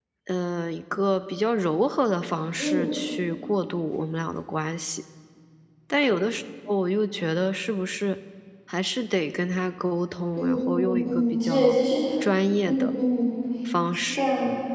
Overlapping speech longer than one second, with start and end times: 10.4-11.8

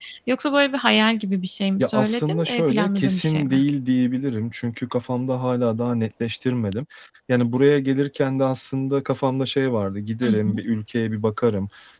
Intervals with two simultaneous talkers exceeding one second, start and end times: 1.8-3.6

